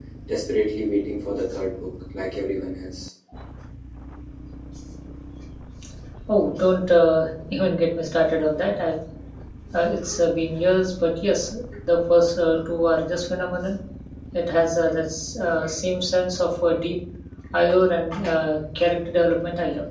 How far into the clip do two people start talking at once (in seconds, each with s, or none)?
none